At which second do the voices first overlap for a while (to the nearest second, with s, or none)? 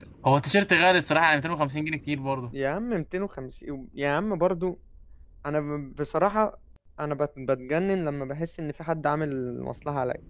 none